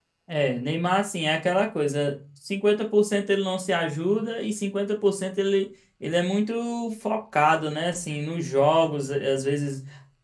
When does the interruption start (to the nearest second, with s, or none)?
none